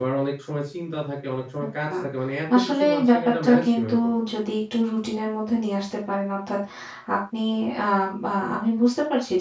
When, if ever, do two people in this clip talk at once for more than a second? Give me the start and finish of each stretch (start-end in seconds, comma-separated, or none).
2.5-3.9